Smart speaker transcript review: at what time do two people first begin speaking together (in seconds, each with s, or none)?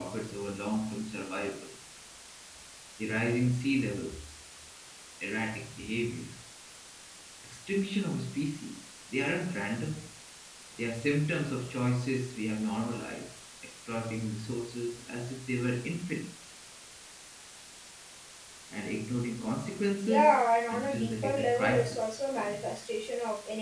20.1 s